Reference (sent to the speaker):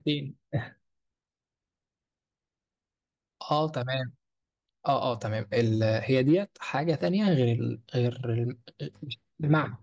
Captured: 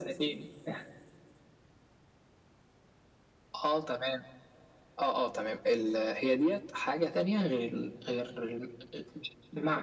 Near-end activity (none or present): none